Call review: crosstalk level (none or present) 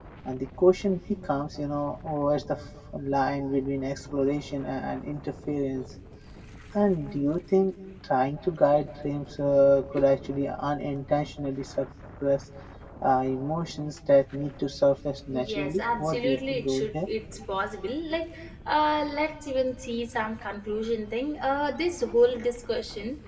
present